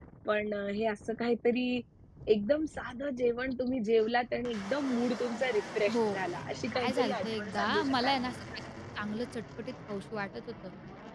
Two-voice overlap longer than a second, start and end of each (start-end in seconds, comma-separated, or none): 6.7-8.2